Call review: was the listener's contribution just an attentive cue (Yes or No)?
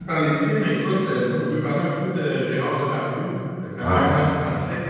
Yes